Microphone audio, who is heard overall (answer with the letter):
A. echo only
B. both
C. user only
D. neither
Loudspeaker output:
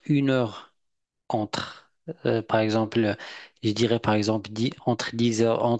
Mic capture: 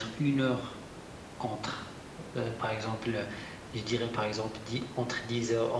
A